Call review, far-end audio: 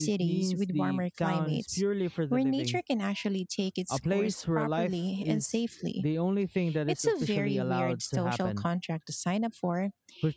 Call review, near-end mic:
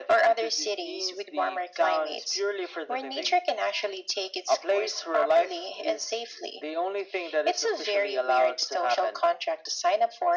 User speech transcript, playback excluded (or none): none